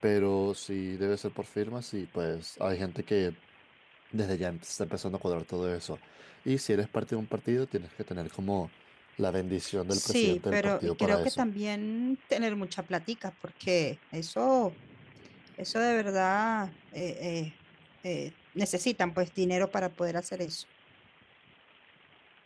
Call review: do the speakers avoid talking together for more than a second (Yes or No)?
No